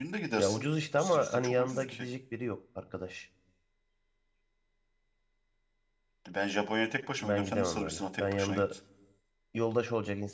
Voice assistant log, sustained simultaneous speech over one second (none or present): present